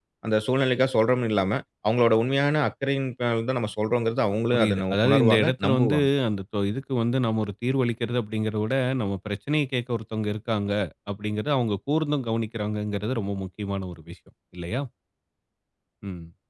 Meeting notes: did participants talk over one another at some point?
Yes, from 4.5 s

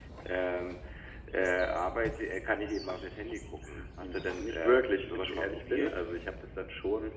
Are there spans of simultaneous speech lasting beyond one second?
Yes, from 3.7 s

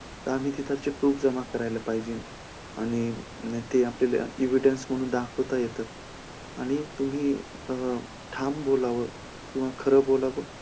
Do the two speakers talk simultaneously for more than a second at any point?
No

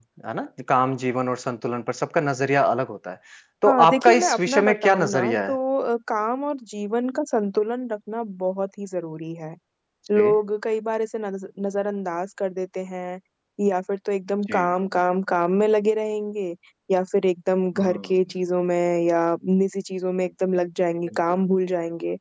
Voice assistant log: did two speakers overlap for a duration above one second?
Yes, from 3.6 s

